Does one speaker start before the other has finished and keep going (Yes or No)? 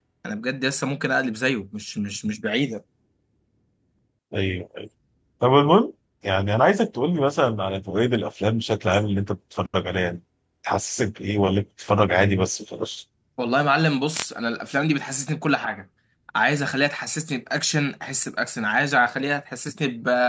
No